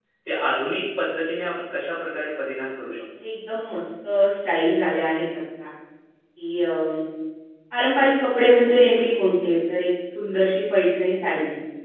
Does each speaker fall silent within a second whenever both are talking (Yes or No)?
Yes